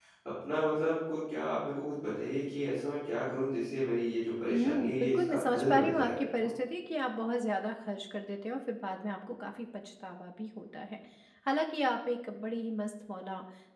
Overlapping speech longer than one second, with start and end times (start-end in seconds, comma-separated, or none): 4.5-6.5